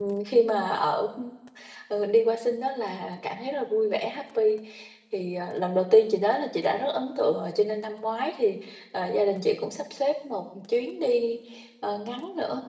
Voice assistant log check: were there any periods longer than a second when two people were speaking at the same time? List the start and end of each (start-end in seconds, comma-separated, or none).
none